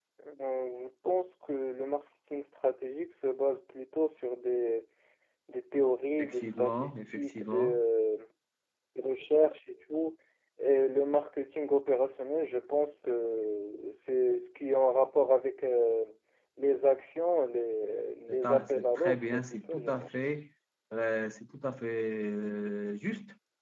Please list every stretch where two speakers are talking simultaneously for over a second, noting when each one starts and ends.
6.2-7.8, 18.3-20.1

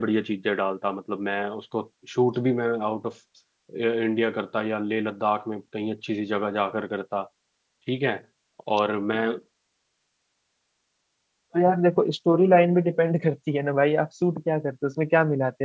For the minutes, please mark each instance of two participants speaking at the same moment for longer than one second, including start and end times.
none

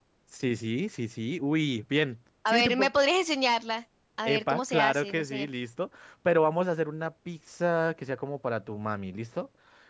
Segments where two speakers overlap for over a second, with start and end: 4.2-5.5

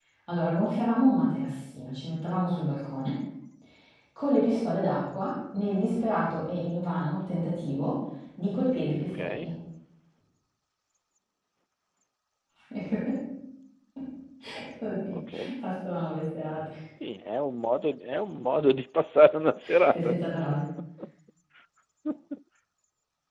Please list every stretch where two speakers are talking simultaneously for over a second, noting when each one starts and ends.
none

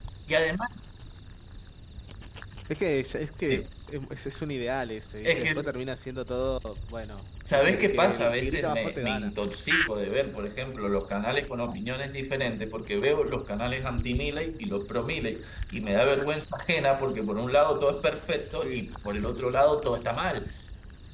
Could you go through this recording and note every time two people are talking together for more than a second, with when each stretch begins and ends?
7.5-9.3

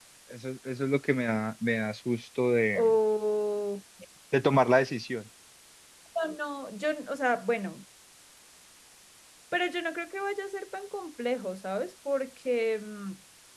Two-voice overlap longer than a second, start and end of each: none

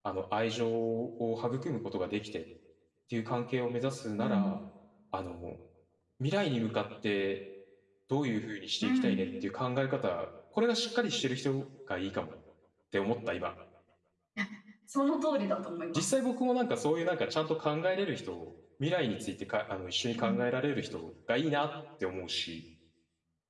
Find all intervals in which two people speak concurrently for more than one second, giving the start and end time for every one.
none

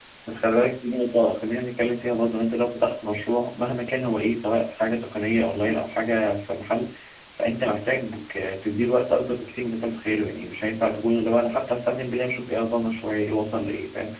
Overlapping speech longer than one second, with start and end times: none

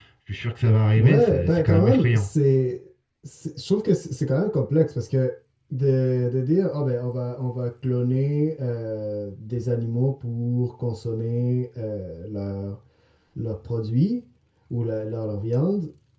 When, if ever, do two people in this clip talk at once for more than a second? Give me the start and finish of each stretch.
1.0-2.3

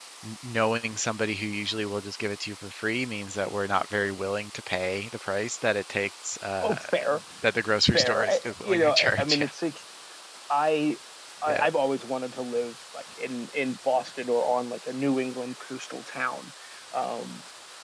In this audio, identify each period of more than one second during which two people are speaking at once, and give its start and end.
7.8-9.4

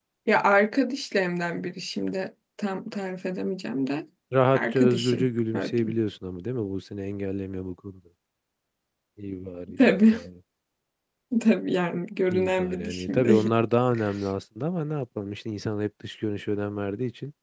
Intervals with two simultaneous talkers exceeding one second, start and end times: 4.5-6.0, 12.3-13.5

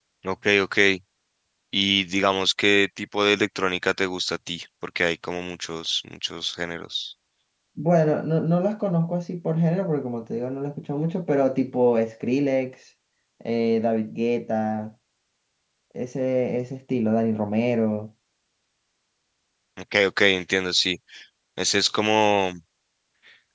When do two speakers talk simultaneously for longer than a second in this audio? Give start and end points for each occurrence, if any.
none

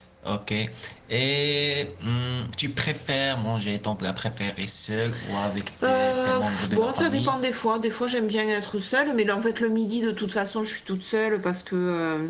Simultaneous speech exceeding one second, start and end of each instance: 5.8-7.4

